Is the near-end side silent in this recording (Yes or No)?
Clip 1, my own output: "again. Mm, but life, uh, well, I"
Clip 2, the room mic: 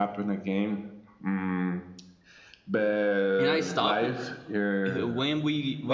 No